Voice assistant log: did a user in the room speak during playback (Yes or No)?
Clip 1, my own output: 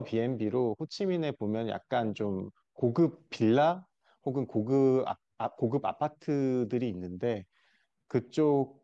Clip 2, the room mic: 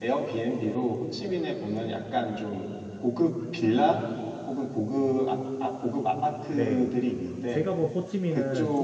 Yes